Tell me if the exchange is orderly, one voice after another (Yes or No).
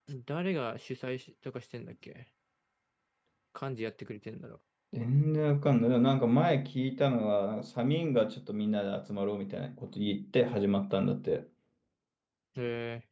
Yes